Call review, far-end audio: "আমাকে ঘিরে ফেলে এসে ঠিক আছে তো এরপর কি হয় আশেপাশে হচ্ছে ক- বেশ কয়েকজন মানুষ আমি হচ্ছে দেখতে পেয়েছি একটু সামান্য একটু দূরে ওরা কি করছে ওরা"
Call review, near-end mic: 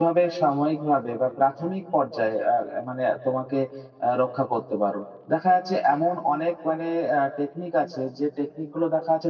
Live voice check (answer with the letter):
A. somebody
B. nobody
A